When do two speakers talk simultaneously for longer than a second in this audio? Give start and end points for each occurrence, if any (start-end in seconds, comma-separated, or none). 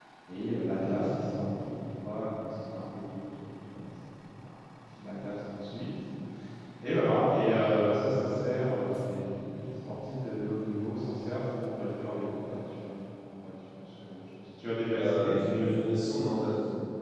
none